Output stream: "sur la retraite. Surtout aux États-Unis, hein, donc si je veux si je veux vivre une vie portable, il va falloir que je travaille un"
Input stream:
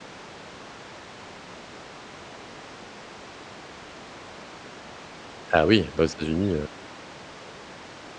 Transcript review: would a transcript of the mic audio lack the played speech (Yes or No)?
Yes